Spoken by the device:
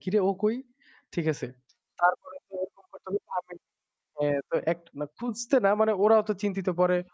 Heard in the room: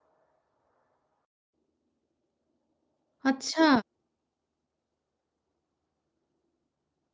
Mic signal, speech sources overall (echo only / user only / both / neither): user only